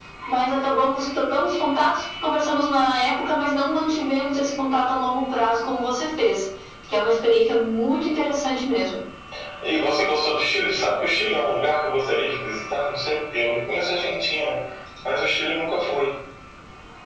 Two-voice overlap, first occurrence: none

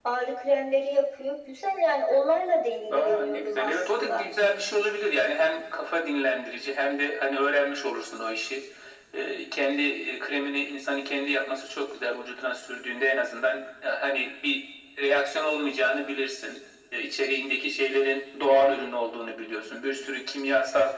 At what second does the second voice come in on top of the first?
2.9 s

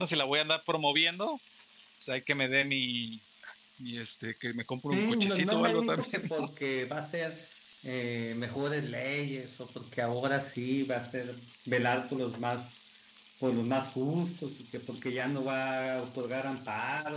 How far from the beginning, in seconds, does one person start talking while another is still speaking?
4.9 s

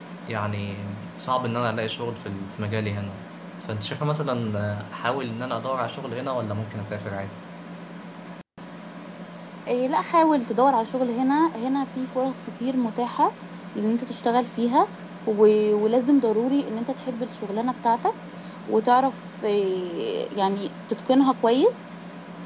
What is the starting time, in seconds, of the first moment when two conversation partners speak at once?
none

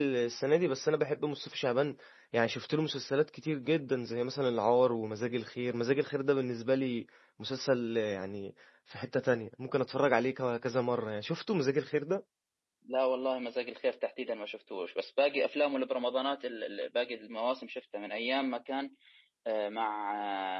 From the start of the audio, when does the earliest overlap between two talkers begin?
none

